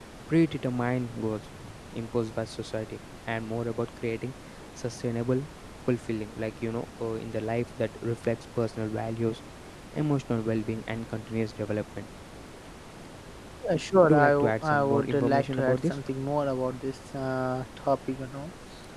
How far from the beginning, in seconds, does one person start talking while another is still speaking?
14.0 s

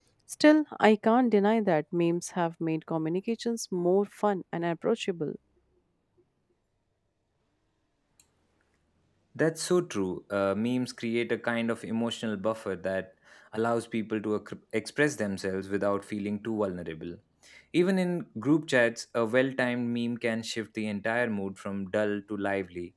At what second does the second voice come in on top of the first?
none

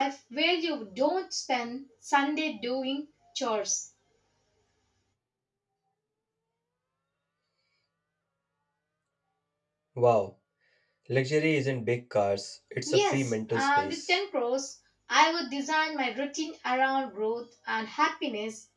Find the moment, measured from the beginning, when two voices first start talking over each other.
12.8 s

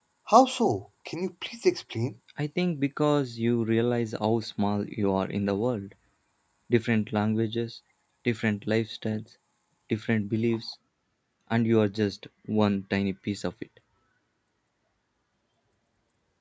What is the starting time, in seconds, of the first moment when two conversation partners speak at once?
none

